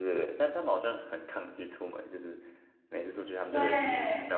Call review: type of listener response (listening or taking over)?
listening